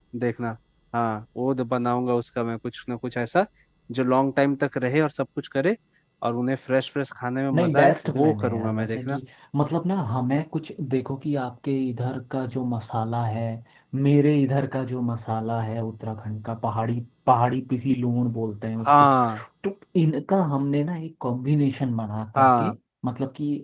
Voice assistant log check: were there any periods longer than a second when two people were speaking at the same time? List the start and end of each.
7.6-9.2

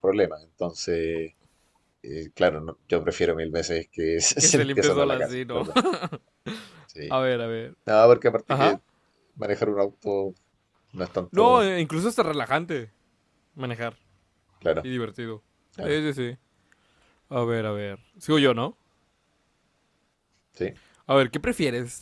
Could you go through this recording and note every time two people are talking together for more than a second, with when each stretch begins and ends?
4.4-5.6

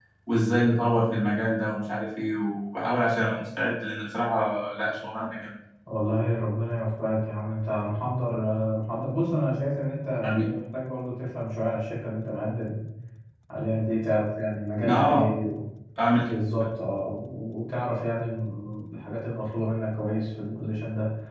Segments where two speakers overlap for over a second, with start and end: none

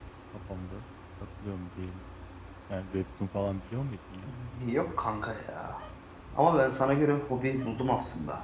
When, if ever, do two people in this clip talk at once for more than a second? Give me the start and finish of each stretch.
none

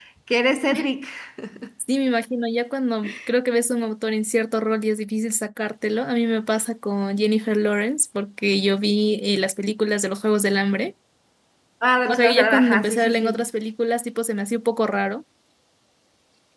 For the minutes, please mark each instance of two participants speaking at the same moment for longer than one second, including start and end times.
12.1-13.4

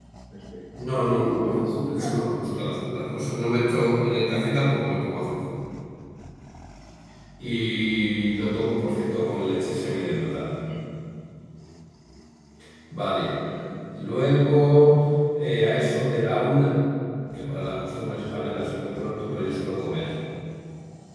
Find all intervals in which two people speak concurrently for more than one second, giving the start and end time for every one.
0.9-2.2

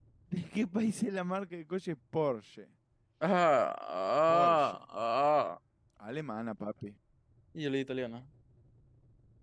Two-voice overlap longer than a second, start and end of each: none

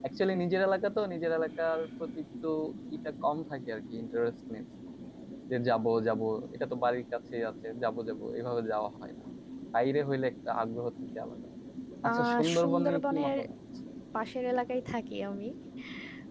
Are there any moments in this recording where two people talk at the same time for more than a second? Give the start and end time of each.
12.1-13.4

